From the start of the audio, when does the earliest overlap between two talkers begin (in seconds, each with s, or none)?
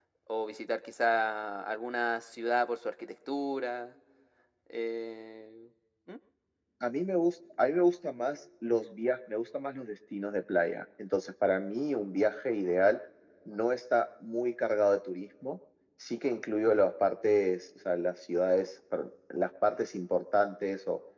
none